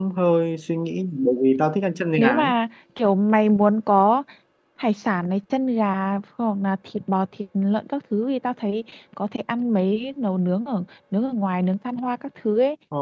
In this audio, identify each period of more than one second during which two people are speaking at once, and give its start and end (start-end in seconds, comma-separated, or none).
none